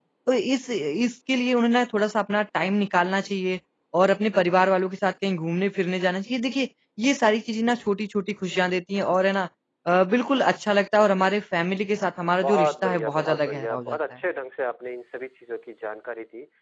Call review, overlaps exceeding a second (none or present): present